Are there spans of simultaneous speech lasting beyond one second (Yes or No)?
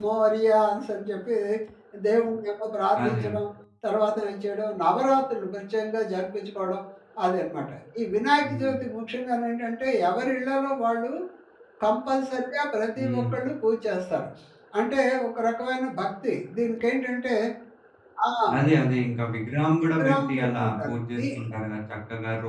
Yes